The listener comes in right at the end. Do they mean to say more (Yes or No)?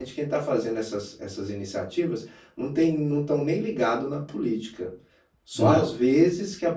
No